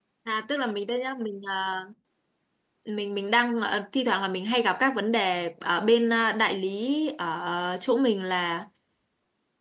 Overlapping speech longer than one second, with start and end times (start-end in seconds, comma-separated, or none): none